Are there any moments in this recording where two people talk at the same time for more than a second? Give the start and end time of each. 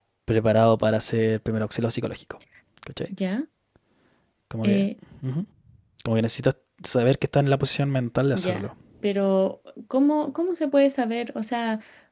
none

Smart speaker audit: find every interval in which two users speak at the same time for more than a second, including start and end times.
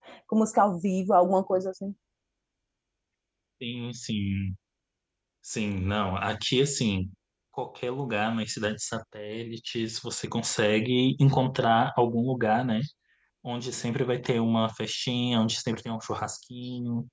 none

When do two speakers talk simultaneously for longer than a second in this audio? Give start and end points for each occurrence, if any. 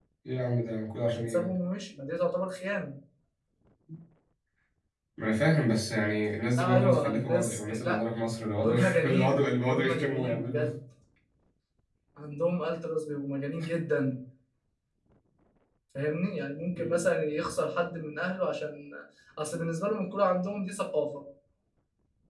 6.6-8.0, 8.6-10.6

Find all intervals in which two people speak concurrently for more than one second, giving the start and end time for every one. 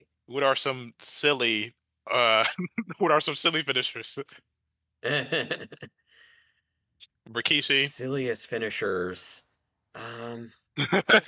none

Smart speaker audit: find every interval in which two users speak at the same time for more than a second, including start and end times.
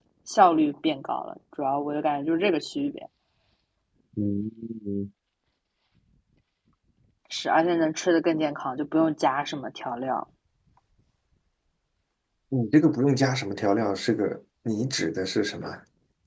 none

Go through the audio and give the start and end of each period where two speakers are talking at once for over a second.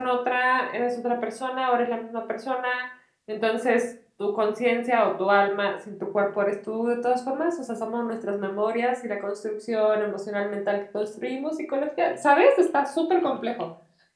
none

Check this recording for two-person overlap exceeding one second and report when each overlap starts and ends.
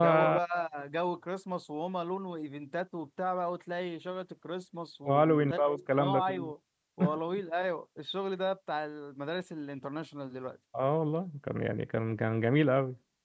5.0-6.5

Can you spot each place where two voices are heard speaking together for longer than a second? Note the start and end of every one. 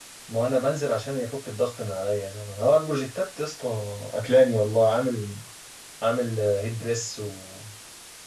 none

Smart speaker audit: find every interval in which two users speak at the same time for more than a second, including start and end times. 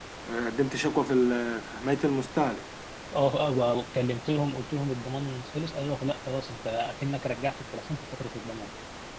none

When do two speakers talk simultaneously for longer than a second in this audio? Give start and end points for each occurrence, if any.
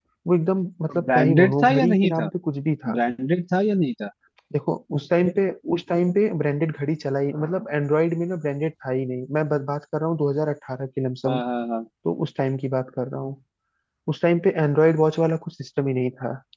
0.9-2.3

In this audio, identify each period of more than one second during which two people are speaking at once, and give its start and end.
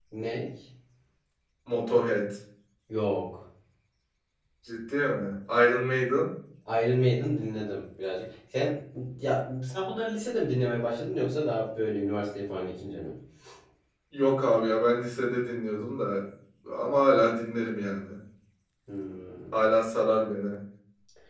none

